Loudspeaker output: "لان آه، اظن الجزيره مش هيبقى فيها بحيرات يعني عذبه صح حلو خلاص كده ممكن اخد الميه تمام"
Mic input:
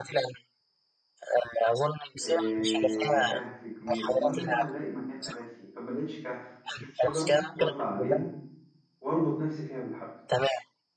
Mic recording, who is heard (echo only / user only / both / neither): both